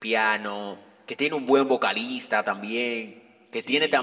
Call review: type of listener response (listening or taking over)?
listening